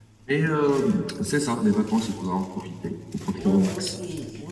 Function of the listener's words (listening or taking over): taking over